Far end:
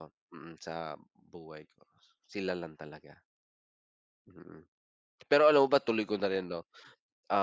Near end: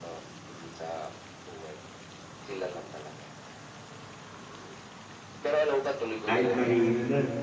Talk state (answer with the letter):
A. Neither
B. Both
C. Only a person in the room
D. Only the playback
B